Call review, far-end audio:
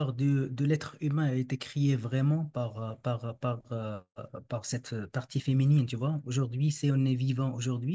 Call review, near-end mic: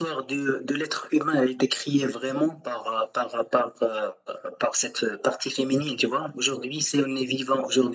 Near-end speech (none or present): none